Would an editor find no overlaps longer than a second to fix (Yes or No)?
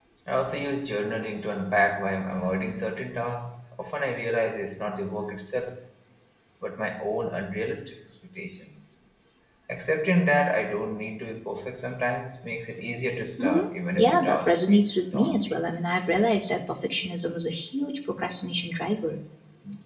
No